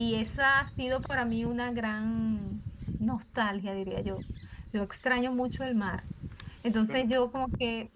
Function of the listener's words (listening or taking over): listening